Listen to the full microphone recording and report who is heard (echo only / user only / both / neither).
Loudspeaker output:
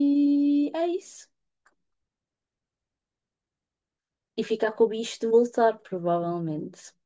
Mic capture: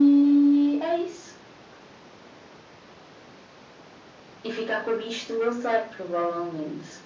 echo only